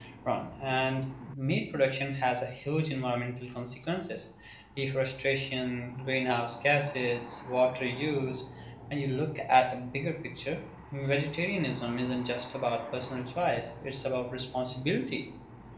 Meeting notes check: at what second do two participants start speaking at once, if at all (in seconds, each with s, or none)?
none